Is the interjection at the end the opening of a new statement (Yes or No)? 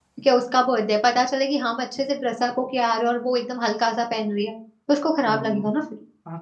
Yes